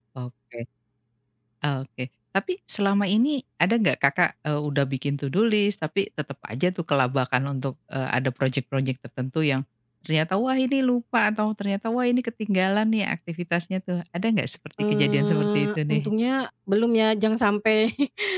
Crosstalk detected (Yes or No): Yes